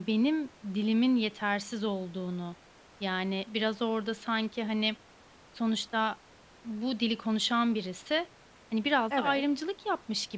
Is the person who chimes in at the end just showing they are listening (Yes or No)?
Yes